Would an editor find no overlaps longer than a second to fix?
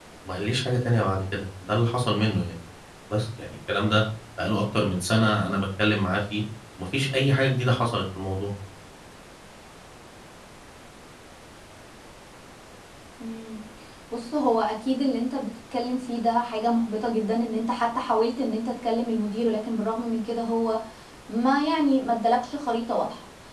Yes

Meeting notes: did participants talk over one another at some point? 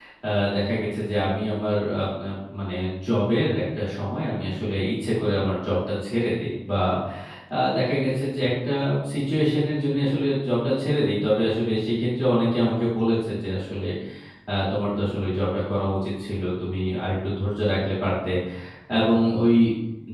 No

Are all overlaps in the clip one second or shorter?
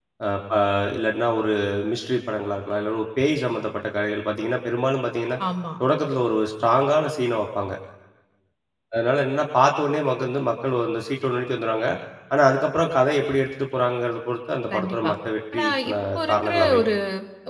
No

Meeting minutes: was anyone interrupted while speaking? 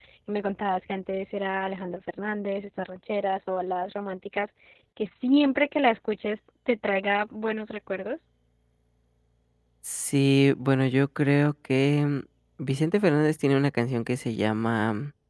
No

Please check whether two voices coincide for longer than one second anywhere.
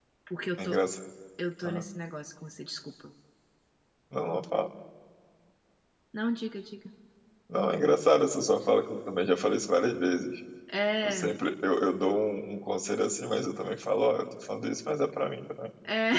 No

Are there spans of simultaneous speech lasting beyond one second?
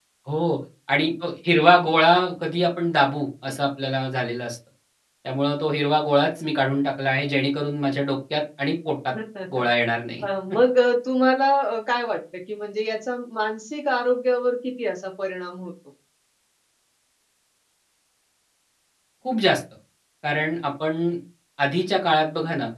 No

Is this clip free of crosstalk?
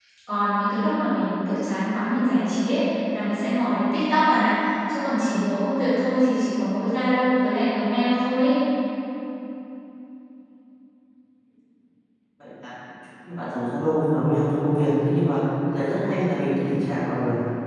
Yes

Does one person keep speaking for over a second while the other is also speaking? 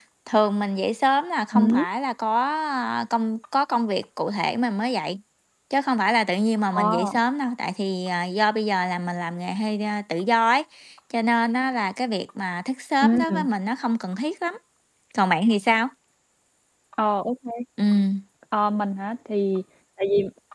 No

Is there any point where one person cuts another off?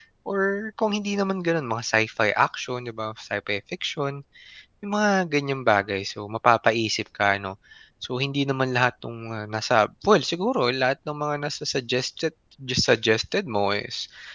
No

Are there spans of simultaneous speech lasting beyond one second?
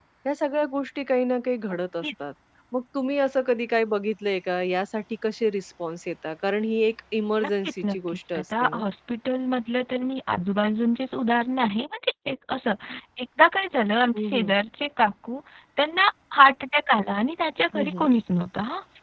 Yes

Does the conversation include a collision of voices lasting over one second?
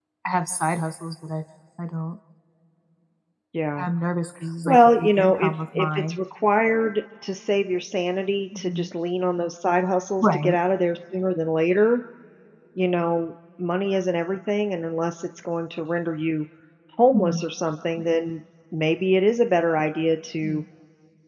Yes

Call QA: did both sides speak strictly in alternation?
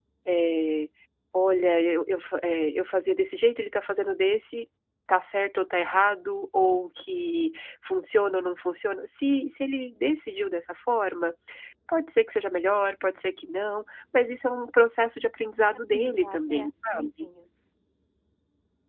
No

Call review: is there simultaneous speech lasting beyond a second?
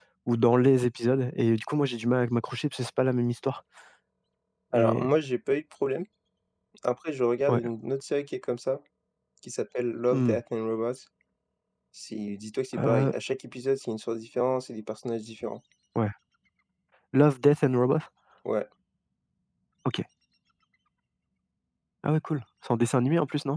No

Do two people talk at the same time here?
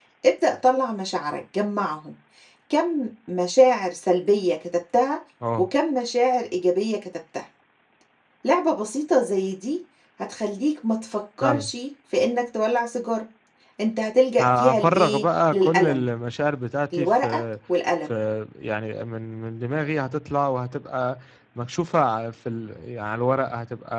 Yes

